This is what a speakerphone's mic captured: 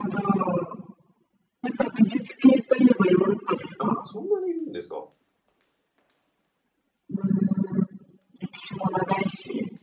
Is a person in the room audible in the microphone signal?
Yes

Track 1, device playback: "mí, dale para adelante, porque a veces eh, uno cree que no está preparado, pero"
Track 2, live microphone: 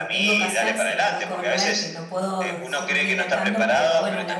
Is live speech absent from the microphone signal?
No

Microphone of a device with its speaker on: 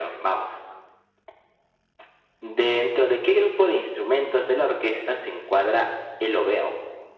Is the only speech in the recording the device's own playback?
Yes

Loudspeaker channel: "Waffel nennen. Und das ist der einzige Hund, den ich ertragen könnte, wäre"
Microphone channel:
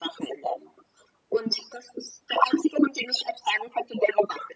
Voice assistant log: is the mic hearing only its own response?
Yes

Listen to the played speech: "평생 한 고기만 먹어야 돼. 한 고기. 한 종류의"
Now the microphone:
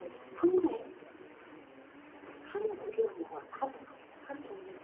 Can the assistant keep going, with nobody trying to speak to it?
Yes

